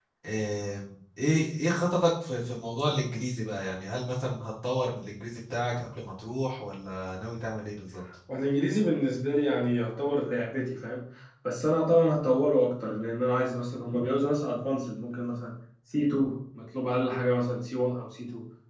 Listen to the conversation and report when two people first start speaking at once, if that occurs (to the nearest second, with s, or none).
none